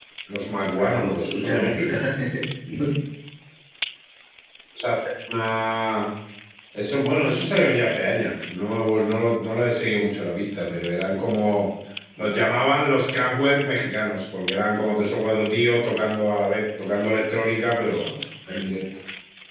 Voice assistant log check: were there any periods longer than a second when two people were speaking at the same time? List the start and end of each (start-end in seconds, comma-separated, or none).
0.8-2.0